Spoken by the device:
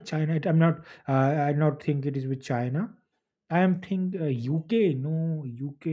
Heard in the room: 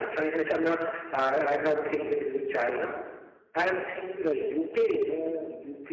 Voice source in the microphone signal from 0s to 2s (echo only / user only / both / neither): echo only